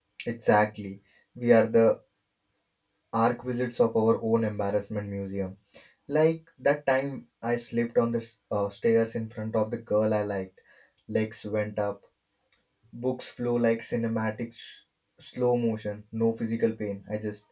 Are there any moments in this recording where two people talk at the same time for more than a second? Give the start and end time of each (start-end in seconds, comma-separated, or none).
none